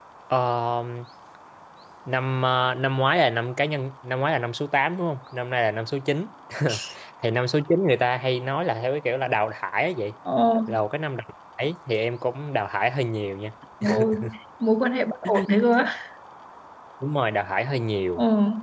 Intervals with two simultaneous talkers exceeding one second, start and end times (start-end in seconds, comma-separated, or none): none